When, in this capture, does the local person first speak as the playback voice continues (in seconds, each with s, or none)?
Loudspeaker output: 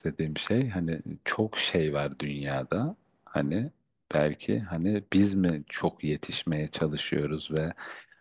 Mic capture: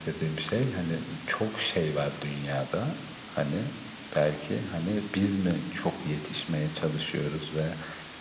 none